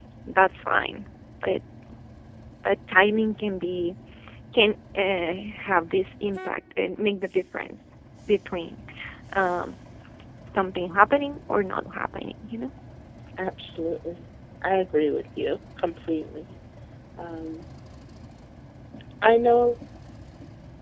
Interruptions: none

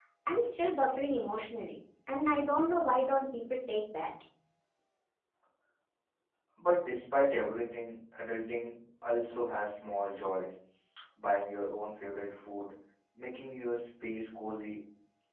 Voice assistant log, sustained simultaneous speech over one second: none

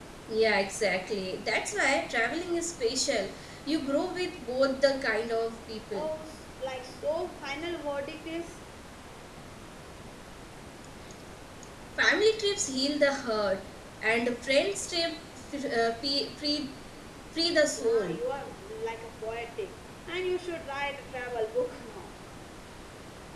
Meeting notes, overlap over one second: none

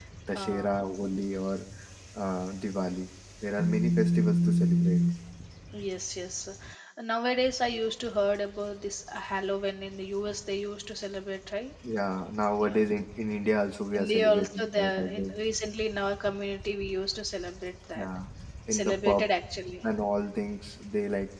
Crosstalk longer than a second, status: present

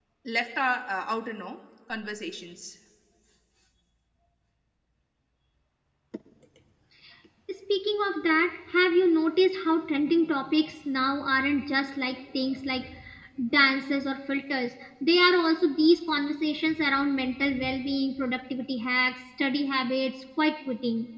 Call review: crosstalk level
none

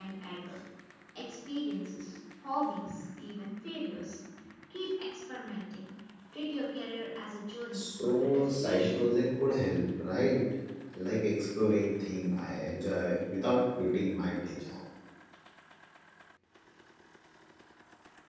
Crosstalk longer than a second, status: present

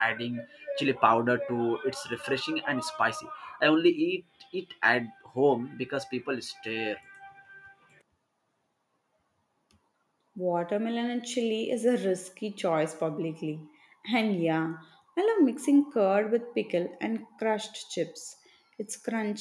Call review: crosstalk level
none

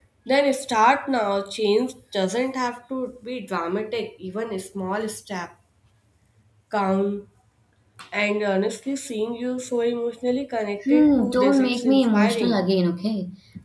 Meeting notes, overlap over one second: present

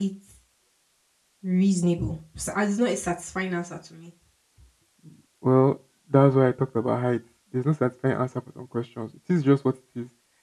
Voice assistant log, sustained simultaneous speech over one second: none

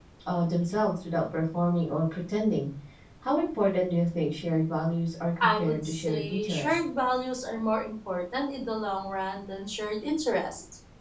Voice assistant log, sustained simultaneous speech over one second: present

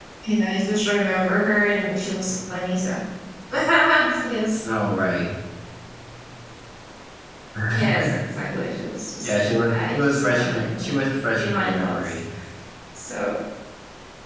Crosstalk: present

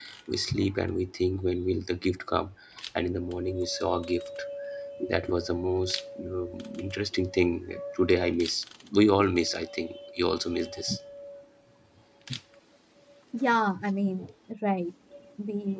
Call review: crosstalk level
none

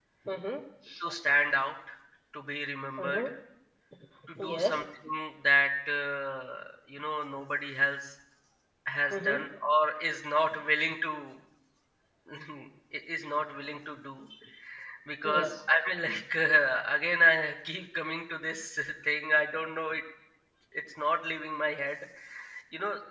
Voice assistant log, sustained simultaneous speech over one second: none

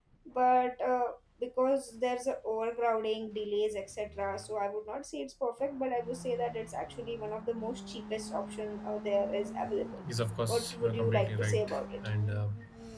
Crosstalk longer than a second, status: present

